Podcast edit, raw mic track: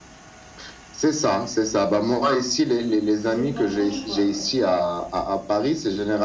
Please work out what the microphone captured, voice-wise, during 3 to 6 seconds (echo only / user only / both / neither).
both